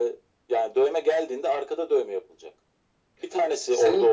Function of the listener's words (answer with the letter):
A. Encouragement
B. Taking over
A